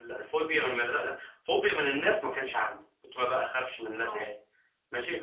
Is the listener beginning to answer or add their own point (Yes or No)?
No